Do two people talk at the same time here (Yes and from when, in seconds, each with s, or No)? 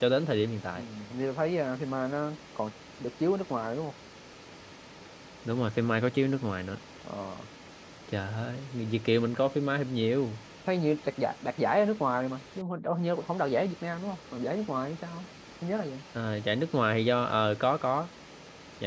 No